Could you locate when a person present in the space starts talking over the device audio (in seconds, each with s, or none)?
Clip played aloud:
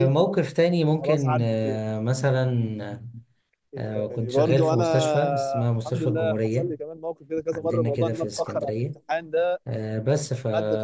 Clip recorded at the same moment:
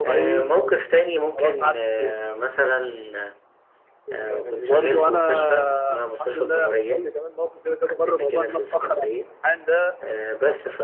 none